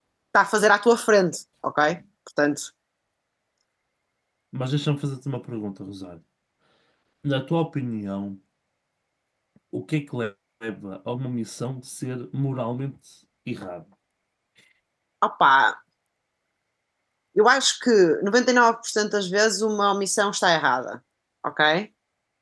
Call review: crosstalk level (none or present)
none